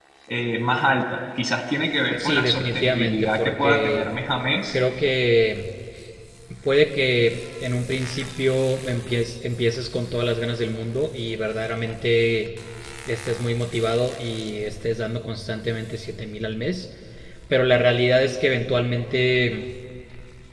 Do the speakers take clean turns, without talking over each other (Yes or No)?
No